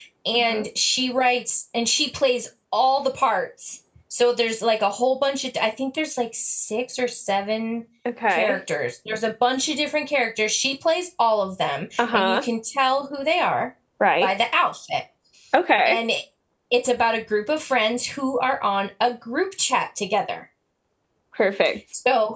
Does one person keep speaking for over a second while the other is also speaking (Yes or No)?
No